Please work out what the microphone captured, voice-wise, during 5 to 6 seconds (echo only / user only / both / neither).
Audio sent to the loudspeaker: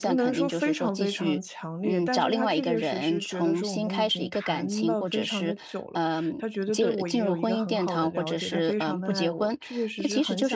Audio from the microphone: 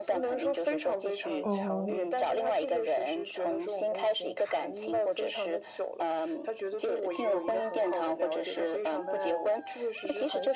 echo only